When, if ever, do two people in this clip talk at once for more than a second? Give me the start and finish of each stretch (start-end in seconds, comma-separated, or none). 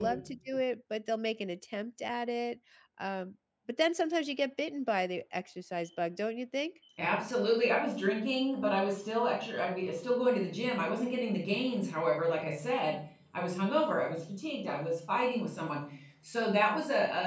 none